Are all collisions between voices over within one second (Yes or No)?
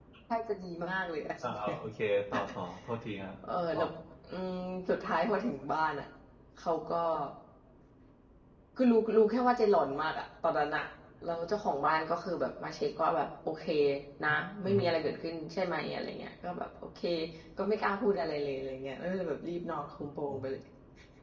Yes